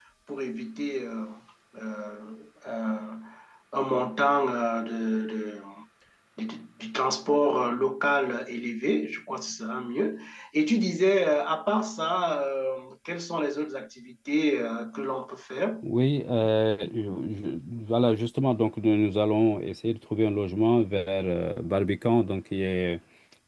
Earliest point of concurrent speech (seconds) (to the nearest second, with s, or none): none